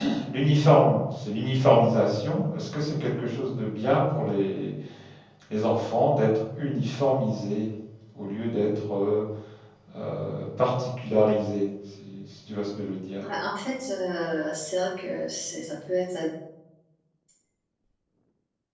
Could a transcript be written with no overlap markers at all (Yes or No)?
Yes